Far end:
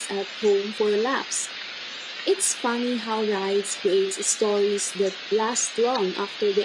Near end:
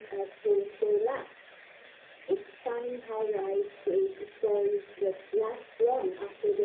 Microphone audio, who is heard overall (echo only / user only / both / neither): echo only